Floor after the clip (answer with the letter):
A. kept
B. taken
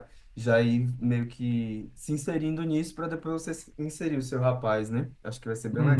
B